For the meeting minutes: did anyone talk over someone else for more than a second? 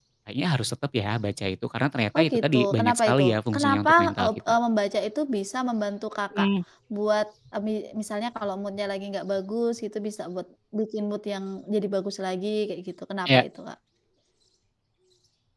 Yes, from 2.2 s

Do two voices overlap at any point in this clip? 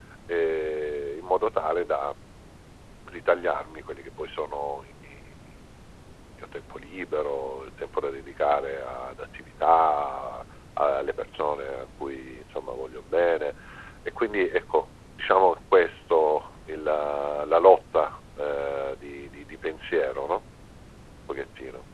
No

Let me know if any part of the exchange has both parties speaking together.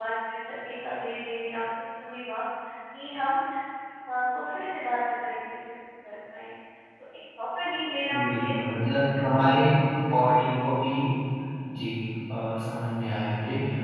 Yes, from 8.1 s

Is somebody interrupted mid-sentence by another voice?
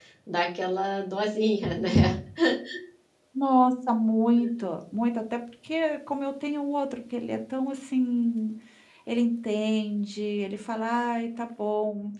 No

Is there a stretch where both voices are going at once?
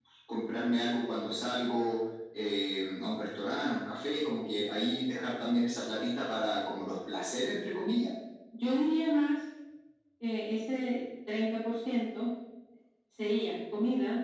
No

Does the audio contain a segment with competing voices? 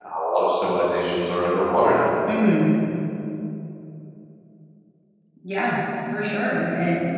No

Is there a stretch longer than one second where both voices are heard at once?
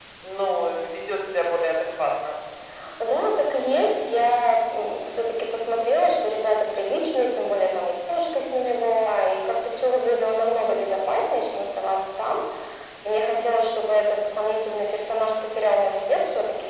No

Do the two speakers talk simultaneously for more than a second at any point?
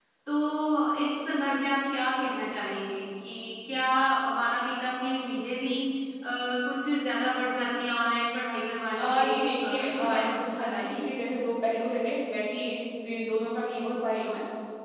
Yes, from 8.9 s

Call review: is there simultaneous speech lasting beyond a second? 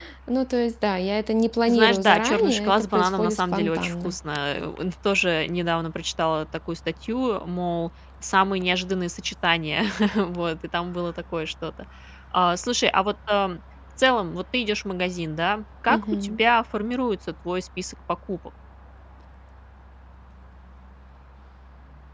Yes, from 1.7 s

